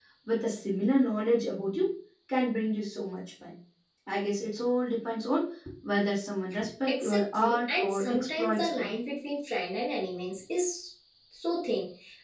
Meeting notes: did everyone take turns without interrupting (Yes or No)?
No